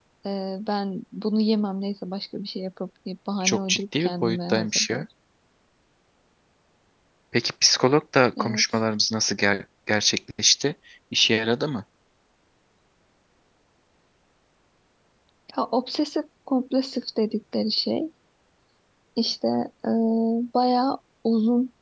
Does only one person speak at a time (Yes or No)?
No